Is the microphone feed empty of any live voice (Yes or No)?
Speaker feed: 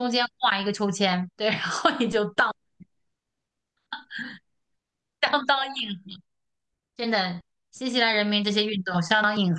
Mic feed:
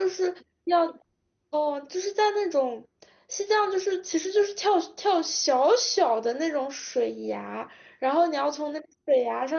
No